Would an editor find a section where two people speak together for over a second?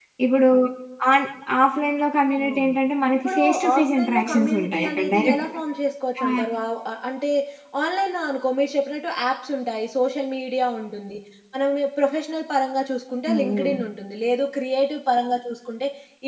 Yes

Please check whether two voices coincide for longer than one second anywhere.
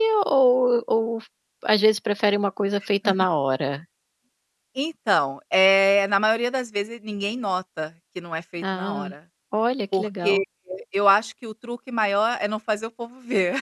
No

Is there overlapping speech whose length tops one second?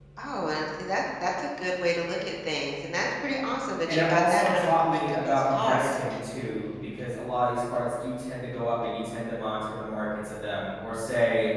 Yes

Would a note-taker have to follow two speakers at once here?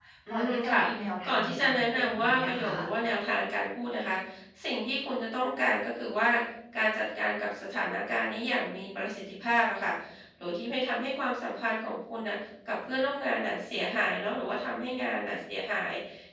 Yes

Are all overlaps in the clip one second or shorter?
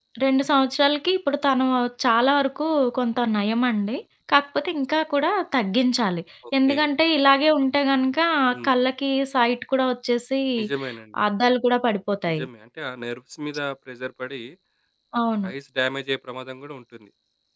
Yes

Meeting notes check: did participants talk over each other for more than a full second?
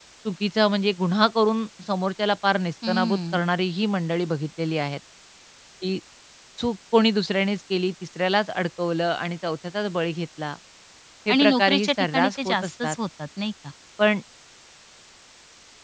Yes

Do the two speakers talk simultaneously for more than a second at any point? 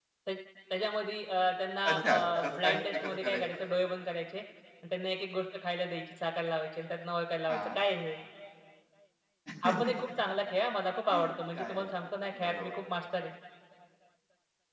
Yes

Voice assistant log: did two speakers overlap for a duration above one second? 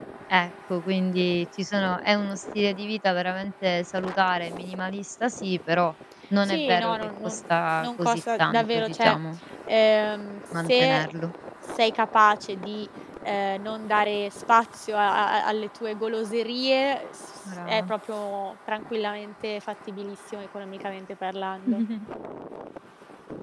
Yes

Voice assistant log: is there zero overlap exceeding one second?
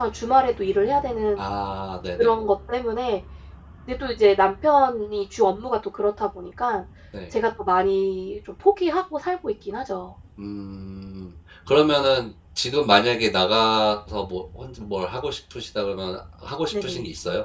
Yes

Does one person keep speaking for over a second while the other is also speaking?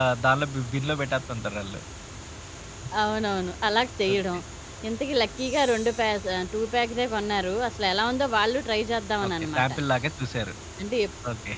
No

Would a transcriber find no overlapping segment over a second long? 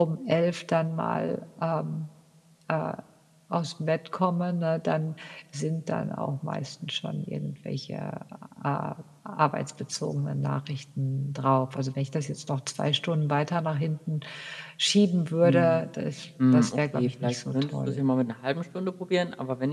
No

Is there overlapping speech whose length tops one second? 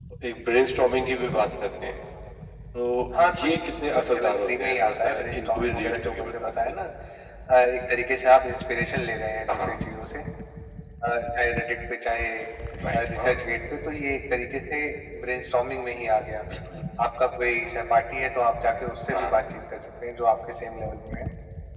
Yes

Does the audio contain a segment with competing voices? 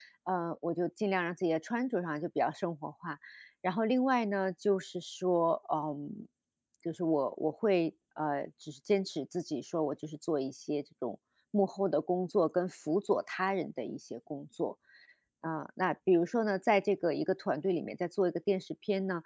No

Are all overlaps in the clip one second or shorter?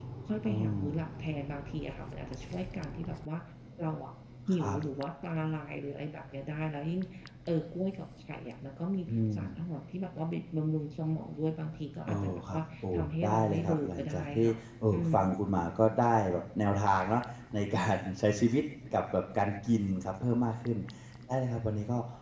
No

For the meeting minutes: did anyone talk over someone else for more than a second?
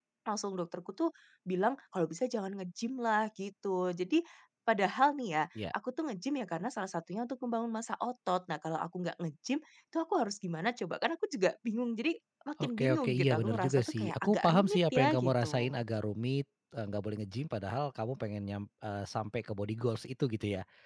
Yes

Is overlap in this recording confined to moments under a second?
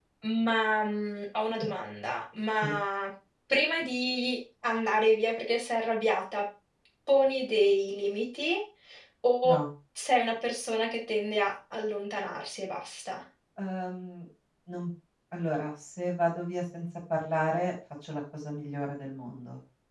Yes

